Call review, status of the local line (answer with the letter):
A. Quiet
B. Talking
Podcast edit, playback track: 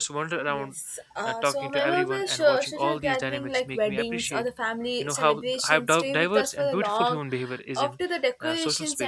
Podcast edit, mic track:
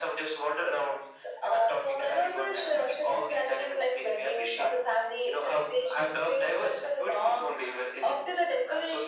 A